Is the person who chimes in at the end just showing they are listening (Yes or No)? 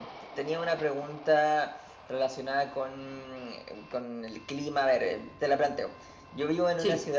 Yes